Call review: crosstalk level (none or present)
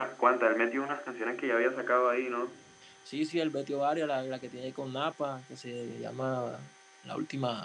none